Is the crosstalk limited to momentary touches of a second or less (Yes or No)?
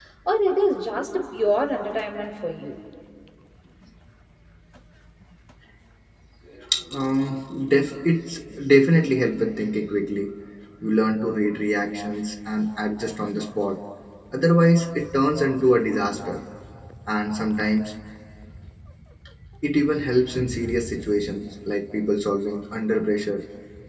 Yes